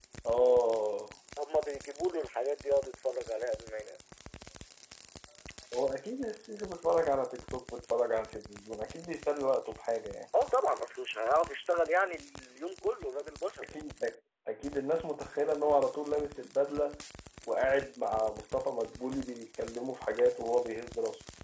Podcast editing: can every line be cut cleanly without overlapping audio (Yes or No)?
Yes